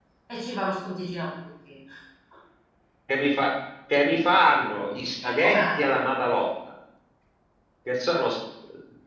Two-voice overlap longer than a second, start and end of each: none

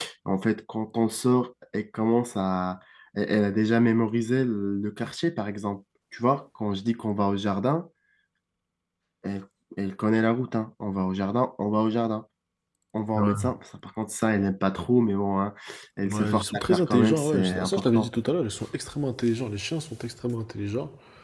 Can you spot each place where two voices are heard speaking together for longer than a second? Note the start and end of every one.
16.1-18.1

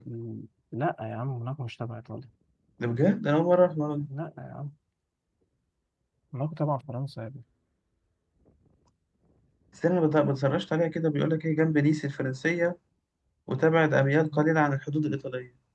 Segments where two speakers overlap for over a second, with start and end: none

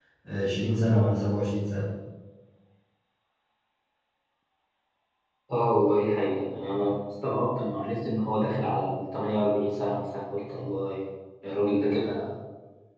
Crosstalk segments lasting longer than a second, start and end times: none

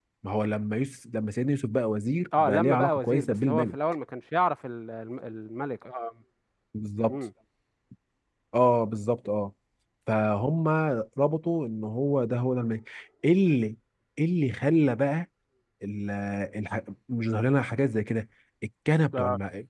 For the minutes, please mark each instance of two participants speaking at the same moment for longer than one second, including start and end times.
2.4-3.7

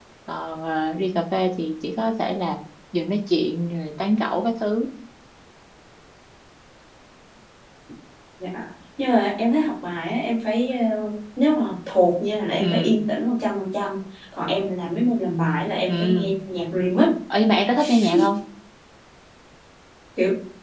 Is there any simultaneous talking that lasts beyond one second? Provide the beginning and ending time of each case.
none

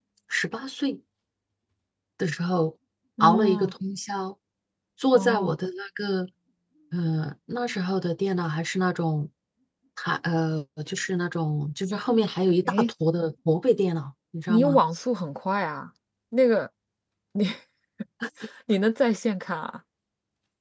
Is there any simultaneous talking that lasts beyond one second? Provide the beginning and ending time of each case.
none

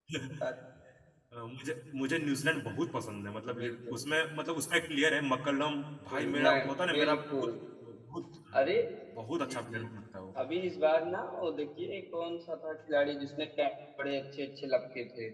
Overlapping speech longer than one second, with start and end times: 6.1-7.5

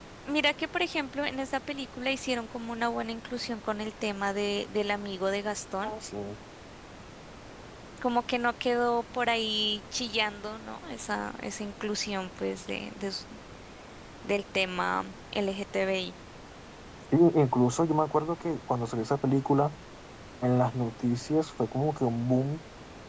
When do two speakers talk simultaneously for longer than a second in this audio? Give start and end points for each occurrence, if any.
none

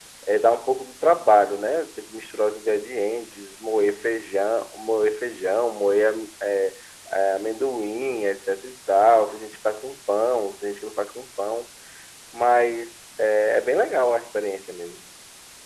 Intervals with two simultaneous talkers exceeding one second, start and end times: none

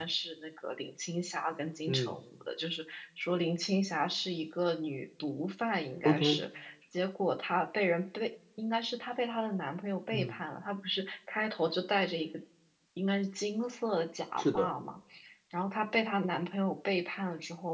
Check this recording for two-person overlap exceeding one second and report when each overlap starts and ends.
none

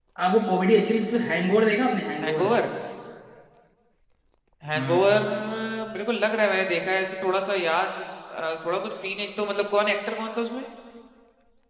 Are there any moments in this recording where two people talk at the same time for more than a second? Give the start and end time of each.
none

